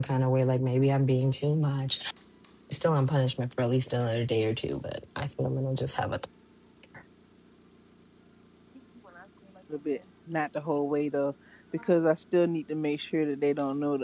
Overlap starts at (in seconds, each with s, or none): none